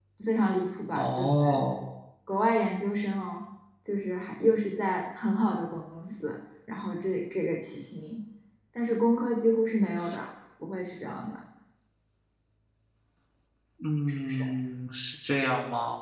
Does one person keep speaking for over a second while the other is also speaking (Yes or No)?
No